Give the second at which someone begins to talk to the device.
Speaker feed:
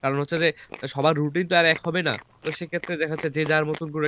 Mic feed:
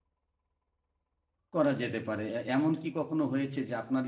1.5 s

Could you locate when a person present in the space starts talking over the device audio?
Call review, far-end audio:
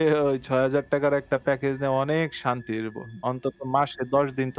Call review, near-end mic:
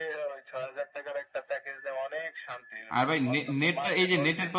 2.9 s

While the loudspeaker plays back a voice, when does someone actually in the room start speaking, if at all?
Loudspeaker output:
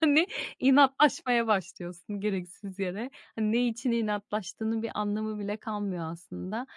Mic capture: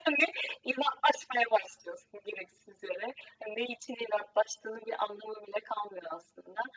none

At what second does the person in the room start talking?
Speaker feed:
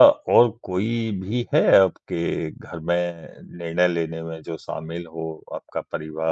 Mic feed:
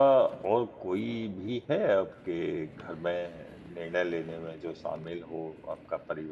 none

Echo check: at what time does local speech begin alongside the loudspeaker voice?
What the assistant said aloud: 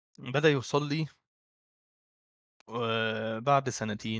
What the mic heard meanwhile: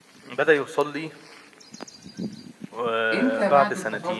3.1 s

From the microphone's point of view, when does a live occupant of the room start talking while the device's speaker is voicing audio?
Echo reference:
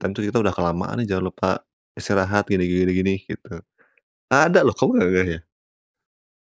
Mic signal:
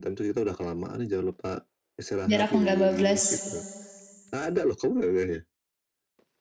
2.2 s

